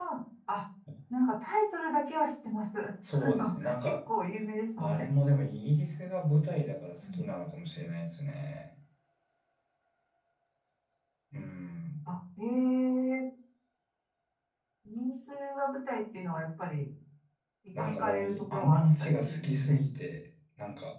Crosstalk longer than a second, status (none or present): present